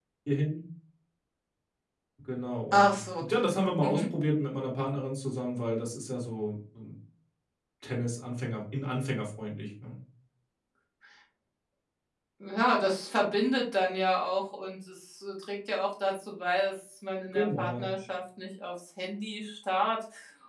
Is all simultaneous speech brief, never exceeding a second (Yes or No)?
Yes